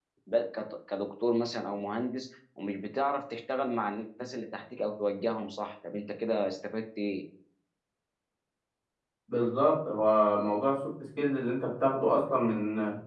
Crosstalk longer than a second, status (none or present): none